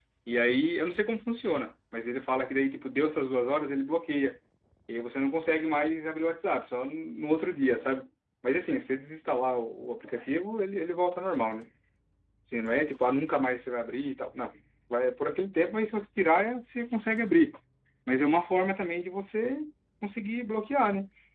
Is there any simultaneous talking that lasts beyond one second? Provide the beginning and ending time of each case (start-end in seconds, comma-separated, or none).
none